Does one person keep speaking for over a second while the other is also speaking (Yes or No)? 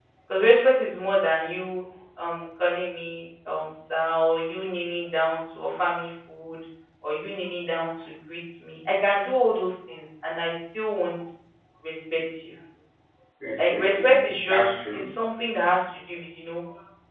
Yes